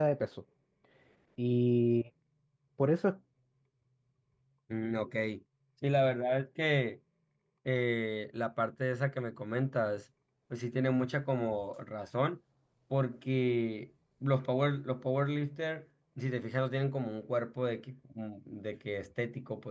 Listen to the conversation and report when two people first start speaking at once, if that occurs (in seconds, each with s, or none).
none